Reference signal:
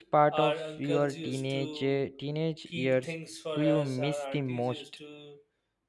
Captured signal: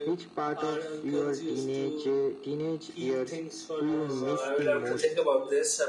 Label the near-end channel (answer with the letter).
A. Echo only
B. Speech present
B